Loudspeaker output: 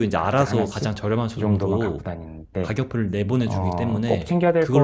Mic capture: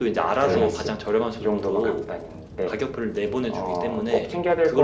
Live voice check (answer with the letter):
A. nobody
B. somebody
B